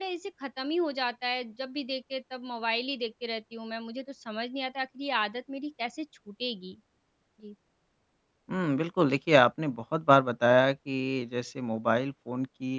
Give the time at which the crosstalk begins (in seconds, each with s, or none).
none